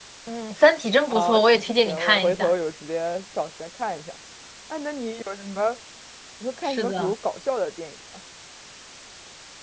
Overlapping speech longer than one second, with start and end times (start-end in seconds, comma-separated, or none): 1.1-2.5